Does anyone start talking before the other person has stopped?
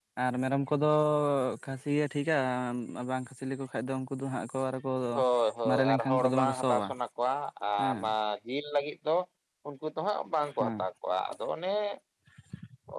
Yes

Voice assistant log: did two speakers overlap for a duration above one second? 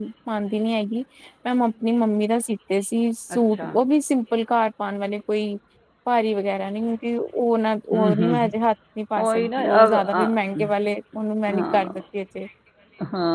Yes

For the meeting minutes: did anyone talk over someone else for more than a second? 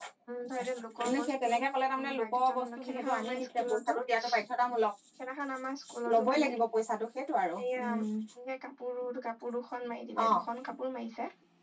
Yes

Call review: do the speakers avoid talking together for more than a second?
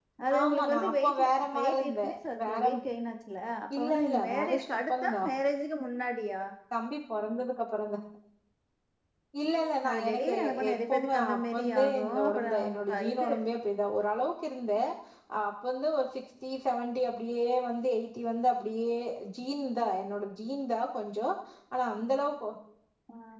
No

